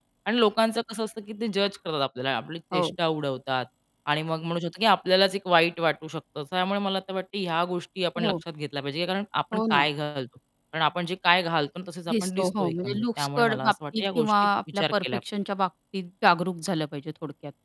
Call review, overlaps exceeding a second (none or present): present